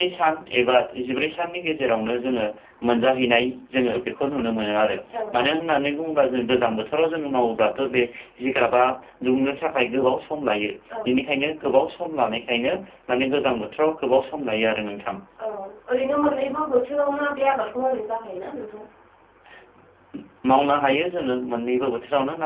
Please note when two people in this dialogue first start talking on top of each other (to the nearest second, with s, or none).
none